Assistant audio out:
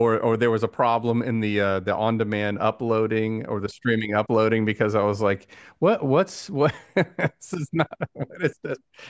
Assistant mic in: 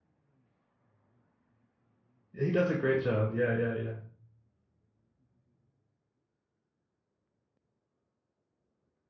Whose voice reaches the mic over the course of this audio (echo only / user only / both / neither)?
user only